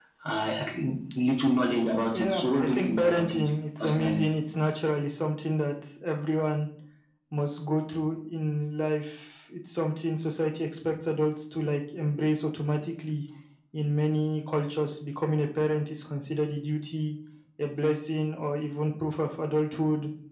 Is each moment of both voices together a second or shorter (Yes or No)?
No